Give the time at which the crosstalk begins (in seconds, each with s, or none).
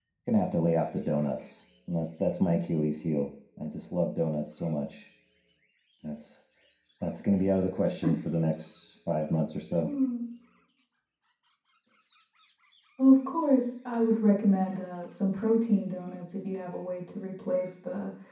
none